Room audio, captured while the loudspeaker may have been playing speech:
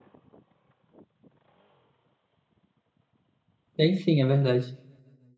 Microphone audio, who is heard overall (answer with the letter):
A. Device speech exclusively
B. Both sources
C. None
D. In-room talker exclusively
D